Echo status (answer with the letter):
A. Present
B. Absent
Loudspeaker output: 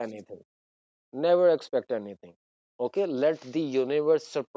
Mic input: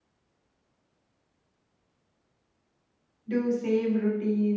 B